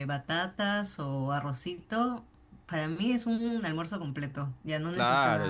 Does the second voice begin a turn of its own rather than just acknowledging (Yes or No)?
Yes